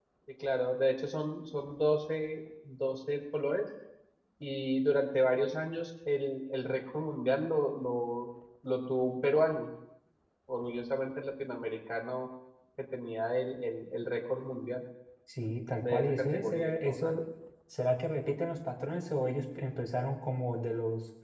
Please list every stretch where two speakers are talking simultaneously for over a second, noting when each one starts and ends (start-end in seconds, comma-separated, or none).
15.8-17.2